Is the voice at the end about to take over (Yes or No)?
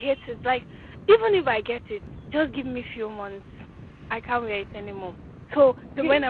No